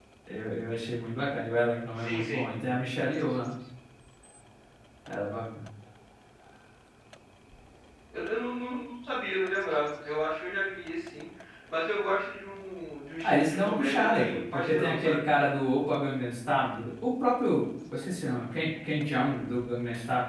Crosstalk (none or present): present